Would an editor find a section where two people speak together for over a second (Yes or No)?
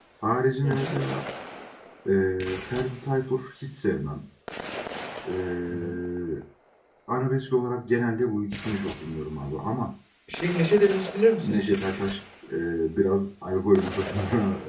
No